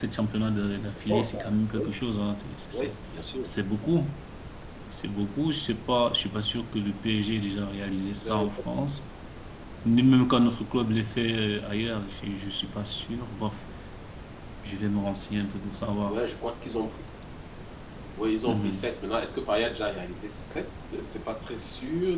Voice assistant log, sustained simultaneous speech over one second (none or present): none